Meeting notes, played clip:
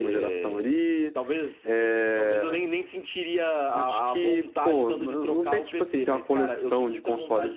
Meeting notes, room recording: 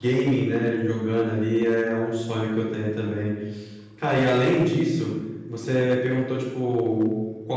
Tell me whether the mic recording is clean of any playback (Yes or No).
Yes